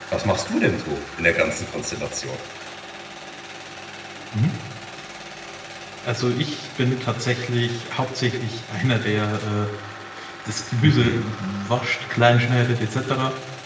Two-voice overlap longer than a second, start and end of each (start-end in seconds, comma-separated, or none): none